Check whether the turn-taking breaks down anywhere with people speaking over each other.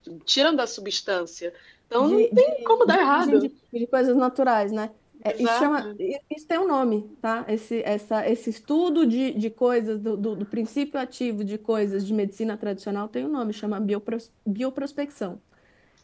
Yes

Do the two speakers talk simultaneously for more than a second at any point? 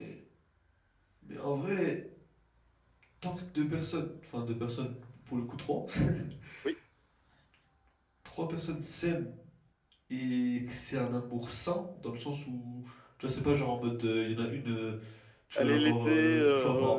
Yes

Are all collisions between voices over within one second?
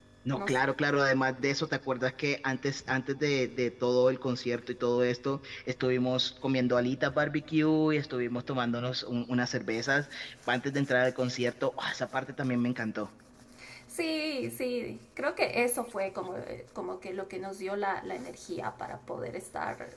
Yes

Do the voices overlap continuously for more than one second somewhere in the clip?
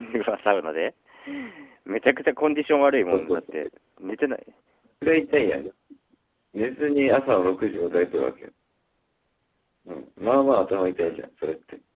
No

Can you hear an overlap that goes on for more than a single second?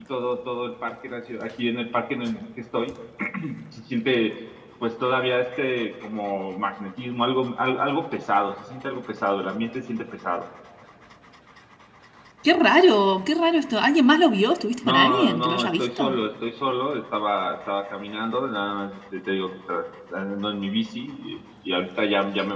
Yes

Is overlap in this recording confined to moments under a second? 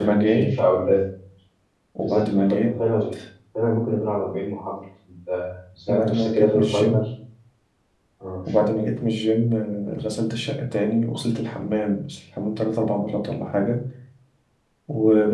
No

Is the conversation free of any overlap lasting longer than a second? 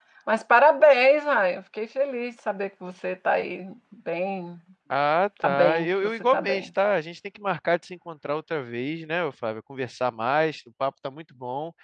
No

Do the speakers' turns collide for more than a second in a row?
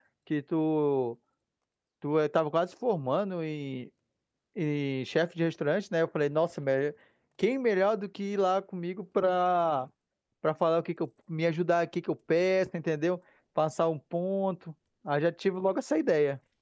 No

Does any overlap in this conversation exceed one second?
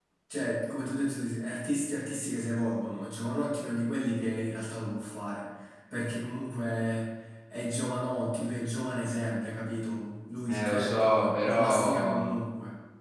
Yes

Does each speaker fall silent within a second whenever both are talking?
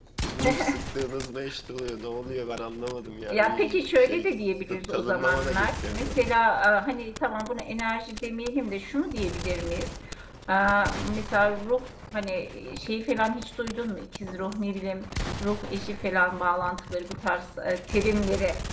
No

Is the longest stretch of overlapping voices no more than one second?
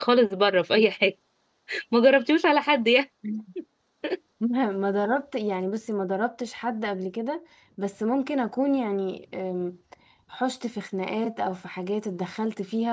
Yes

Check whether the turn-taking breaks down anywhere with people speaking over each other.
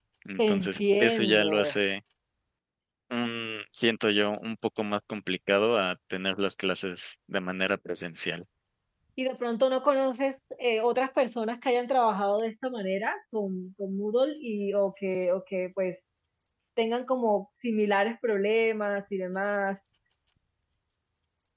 Yes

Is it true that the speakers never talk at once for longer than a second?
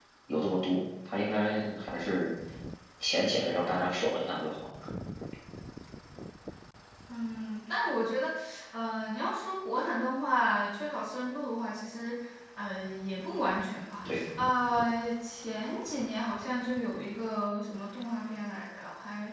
Yes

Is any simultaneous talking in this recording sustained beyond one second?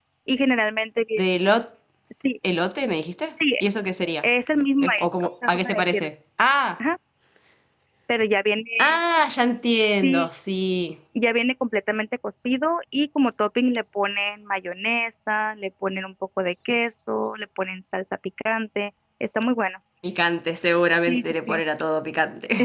Yes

